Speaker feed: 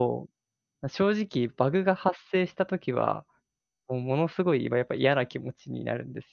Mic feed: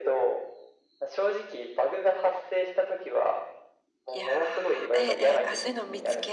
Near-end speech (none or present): present